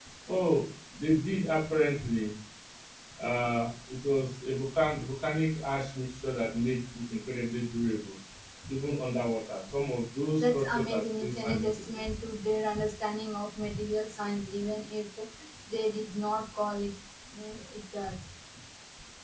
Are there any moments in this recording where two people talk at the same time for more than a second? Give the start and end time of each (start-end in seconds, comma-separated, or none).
10.4-12.1